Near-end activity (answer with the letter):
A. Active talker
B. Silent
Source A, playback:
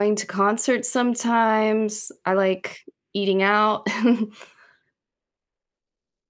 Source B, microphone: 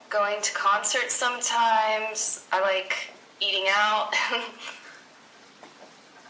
B